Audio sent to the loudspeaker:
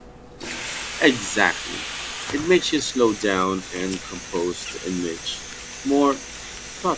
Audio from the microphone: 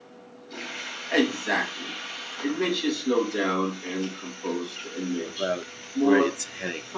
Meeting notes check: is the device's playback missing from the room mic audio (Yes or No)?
No